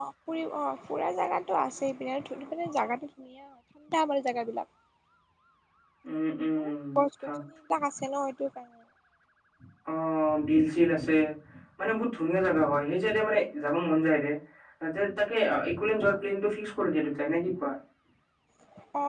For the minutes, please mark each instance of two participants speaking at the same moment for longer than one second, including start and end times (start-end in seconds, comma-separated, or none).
none